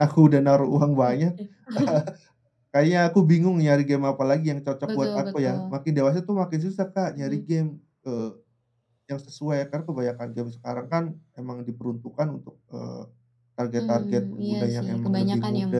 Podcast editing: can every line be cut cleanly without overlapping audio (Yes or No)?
No